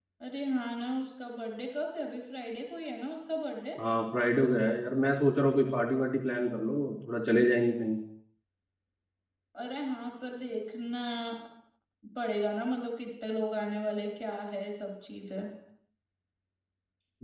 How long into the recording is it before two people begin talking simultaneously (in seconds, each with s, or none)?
none